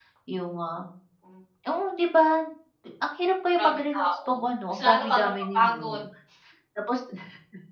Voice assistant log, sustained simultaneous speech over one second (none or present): present